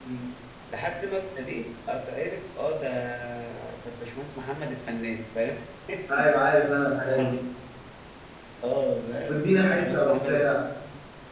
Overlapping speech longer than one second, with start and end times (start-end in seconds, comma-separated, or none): 9.3-10.6